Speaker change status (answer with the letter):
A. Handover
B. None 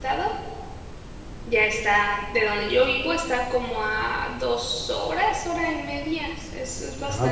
A